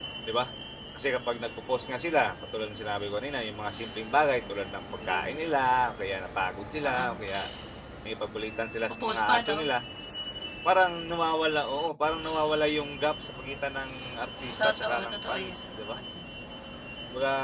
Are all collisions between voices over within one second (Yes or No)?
No